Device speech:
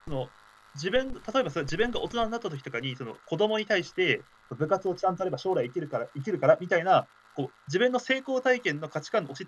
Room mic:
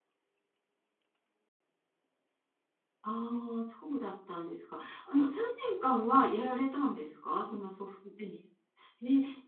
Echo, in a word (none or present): none